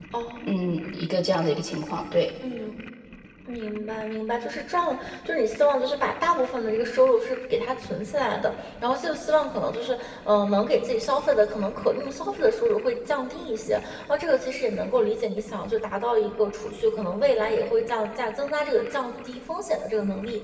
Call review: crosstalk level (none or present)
none